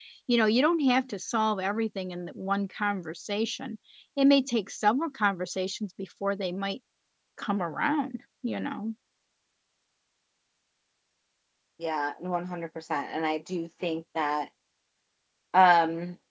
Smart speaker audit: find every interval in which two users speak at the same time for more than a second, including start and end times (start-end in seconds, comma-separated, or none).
none